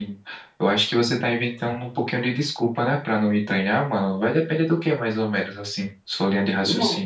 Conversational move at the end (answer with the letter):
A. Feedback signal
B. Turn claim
B